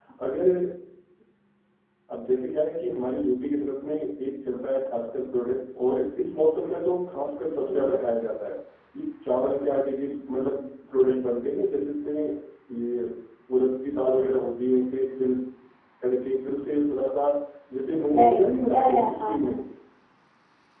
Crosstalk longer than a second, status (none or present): present